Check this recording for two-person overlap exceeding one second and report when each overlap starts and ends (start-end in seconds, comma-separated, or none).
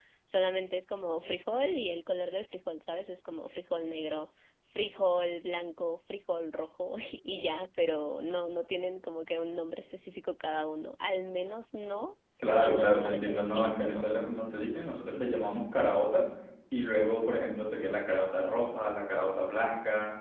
12.6-14.1